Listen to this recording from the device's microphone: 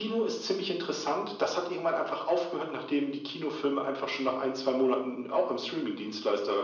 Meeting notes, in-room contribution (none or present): none